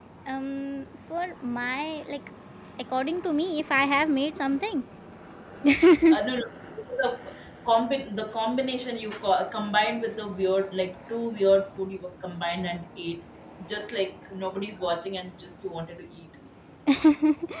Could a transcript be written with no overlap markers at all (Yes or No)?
Yes